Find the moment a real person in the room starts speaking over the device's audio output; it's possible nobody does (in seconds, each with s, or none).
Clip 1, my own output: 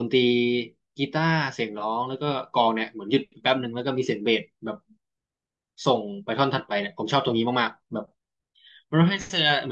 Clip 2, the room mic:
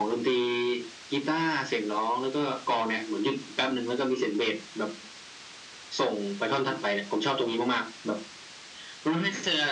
none